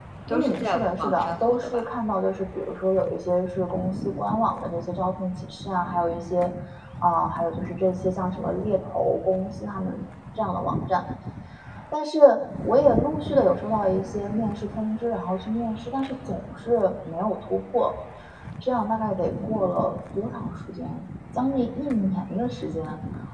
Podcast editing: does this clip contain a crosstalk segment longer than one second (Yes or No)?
Yes